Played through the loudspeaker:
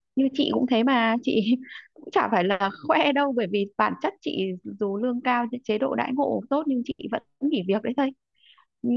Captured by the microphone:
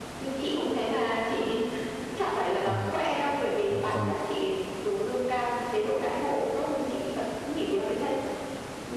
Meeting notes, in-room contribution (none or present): present